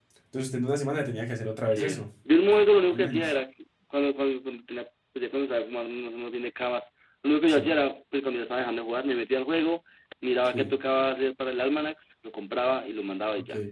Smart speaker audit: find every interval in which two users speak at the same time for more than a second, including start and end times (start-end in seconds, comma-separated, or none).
none